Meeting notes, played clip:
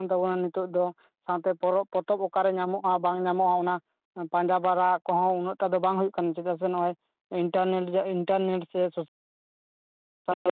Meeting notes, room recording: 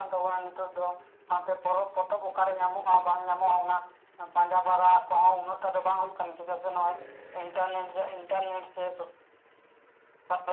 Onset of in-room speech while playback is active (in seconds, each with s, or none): none